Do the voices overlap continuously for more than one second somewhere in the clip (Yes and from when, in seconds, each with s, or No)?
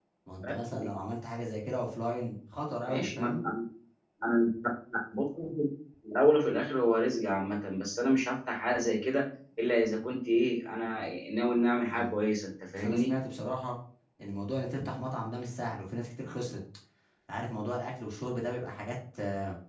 No